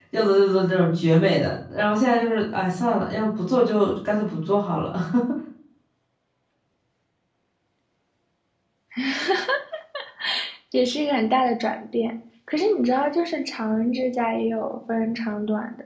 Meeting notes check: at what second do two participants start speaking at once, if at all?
none

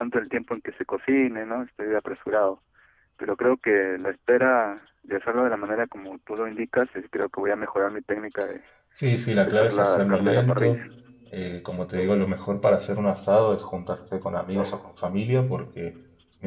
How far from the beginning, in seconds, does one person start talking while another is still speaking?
9.4 s

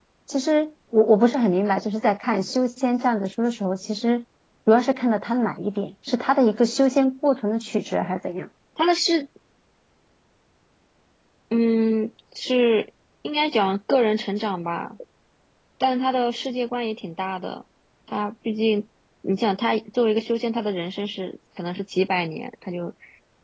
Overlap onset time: none

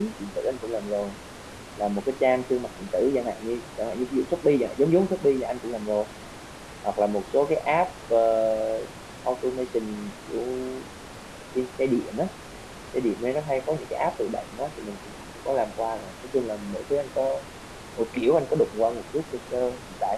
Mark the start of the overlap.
none

